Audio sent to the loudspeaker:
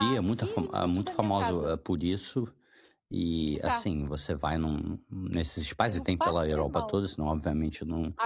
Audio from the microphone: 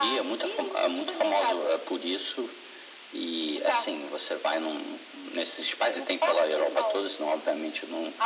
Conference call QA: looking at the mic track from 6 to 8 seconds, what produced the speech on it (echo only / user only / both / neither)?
echo only